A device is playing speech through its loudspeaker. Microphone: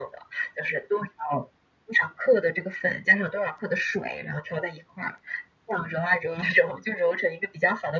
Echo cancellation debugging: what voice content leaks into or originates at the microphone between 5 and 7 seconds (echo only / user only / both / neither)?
echo only